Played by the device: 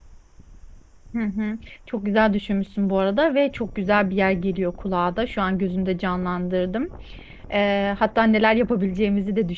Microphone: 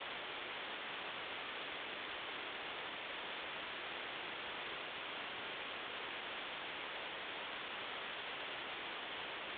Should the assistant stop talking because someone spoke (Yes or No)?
No